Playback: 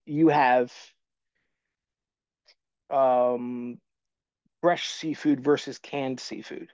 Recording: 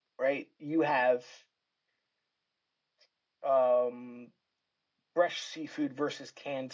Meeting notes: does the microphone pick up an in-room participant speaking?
No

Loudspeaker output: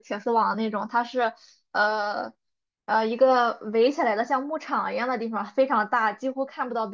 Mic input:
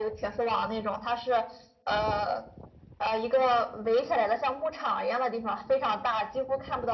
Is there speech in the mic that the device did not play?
No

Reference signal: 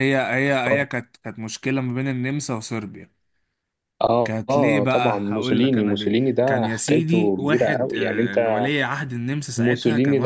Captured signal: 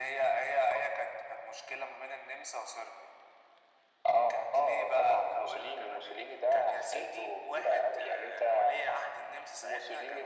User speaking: No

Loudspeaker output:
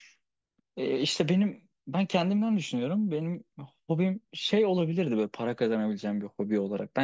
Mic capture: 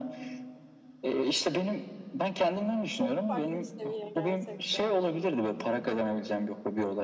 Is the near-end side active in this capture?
Yes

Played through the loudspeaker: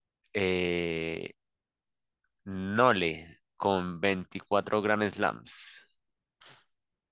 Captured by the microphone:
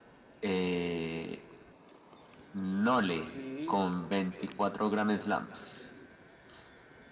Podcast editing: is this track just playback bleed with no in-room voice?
No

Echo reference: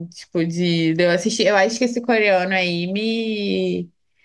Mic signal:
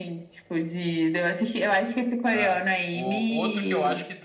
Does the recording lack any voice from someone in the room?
No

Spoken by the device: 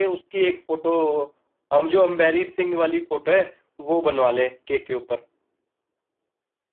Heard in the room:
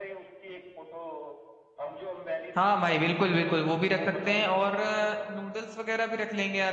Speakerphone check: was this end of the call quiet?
No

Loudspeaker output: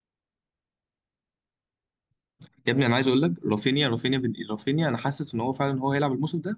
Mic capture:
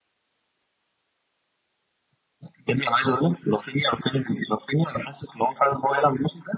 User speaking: No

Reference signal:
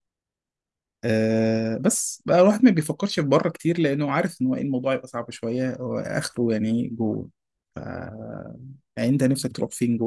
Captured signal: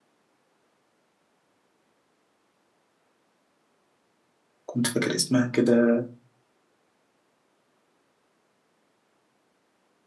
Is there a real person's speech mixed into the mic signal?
Yes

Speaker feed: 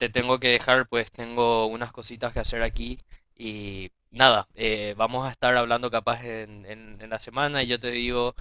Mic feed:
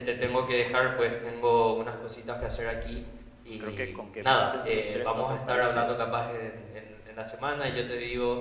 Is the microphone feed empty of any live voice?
No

